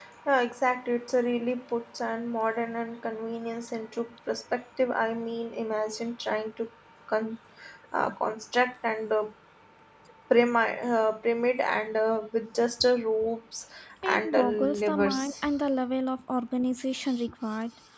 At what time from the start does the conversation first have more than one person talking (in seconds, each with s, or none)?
14.0 s